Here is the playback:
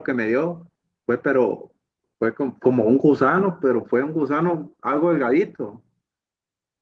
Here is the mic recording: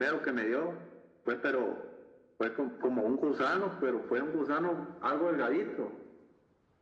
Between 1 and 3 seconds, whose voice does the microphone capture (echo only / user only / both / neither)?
echo only